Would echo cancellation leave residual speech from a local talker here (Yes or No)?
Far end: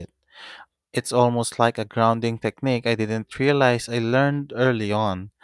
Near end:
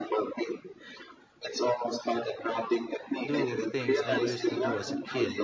Yes